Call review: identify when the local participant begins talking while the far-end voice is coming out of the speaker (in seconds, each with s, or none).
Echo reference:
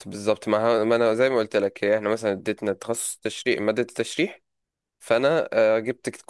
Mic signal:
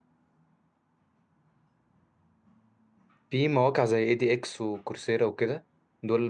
3.3 s